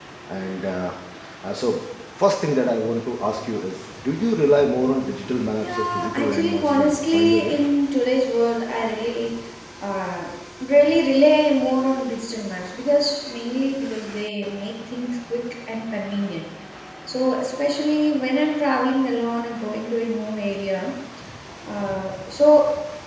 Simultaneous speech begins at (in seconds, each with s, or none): 5.6 s